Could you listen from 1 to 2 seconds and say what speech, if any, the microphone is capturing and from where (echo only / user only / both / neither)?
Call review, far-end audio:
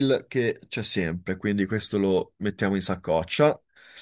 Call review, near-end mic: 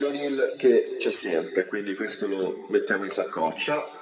echo only